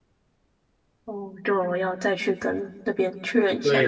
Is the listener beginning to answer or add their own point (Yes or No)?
Yes